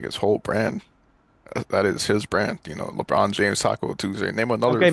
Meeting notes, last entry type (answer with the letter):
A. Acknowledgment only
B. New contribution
B